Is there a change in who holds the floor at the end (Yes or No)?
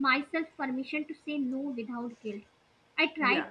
No